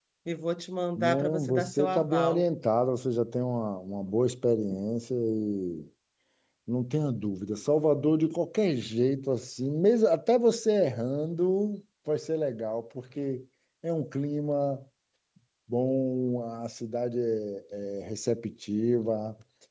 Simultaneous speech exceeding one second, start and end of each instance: 1.0-2.5

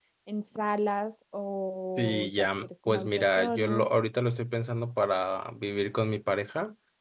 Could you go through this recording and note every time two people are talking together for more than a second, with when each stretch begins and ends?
1.9-3.9

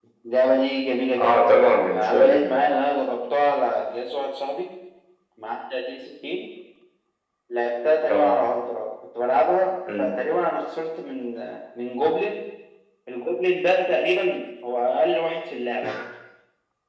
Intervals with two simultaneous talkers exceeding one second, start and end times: 1.2-2.6

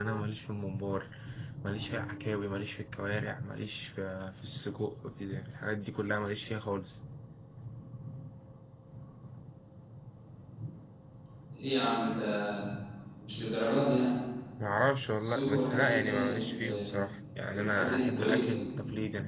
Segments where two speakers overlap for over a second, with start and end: 15.1-16.8, 17.6-18.8

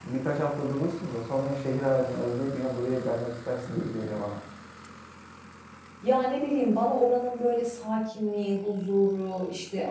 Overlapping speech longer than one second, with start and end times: none

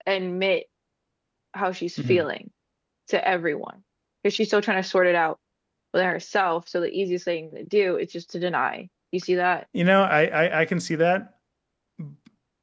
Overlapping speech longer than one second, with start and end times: none

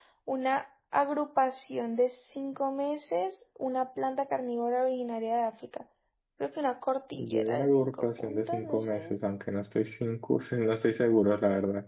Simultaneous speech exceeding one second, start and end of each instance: 7.2-9.1

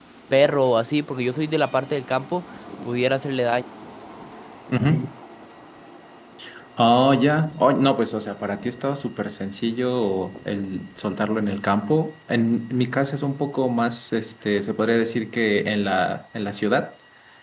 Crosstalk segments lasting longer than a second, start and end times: none

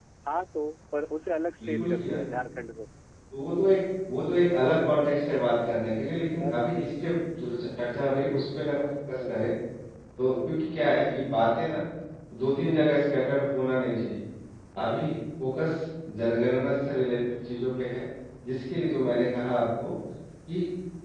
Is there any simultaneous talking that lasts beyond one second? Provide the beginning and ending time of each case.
none

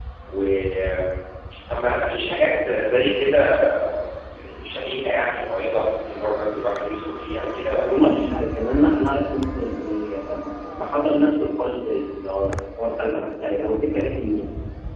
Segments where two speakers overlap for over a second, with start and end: none

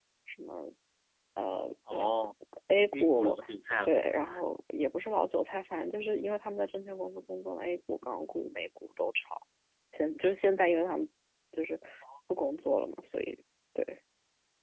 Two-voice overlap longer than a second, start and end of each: none

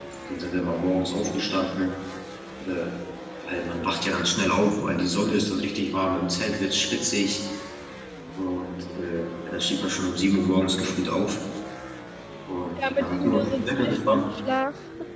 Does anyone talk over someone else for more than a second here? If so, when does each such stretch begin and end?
12.9-14.3

